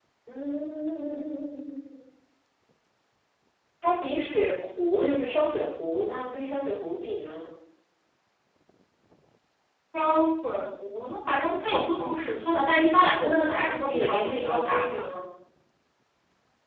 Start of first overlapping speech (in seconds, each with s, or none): 13.2 s